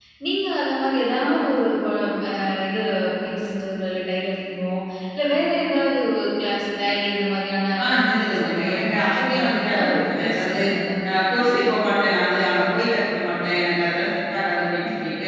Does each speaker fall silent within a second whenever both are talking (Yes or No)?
No